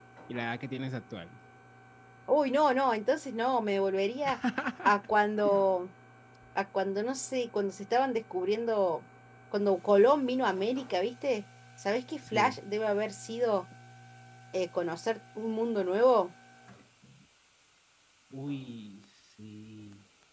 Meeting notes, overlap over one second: none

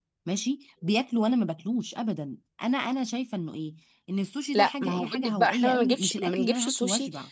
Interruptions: present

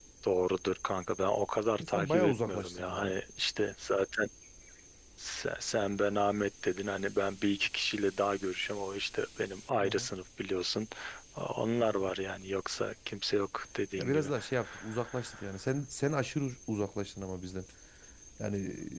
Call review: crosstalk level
present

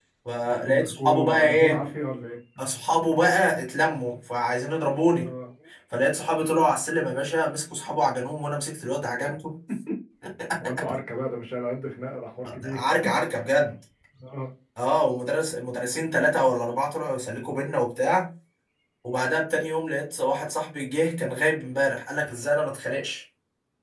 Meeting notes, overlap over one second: present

